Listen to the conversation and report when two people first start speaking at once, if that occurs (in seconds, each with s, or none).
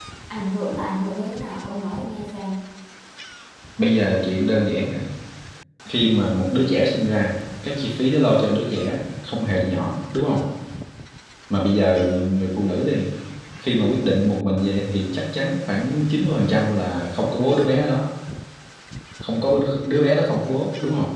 none